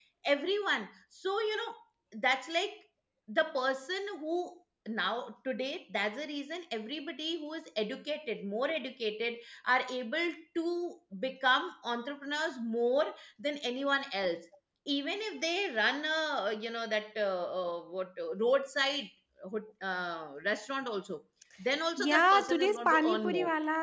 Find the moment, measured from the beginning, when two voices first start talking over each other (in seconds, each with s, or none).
22.0 s